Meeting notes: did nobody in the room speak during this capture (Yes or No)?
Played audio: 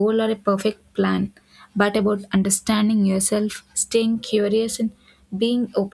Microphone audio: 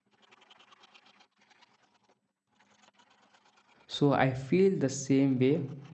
No